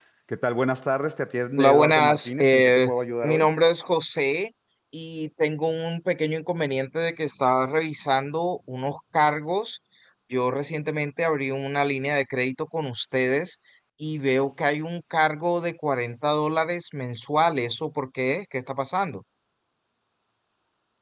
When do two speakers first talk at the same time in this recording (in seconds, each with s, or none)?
1.6 s